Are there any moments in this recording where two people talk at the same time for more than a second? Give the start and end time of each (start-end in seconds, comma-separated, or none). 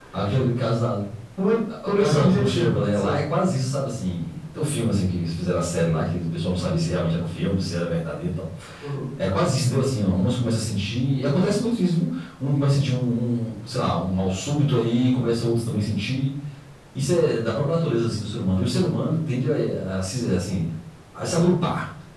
1.9-3.2